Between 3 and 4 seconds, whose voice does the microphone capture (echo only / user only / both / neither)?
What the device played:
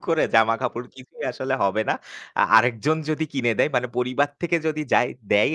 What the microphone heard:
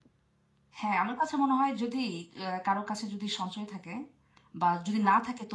user only